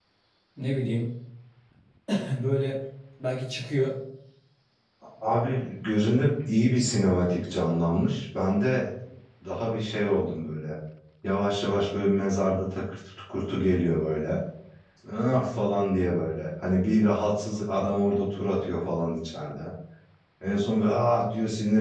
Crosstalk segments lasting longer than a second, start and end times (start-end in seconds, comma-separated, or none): none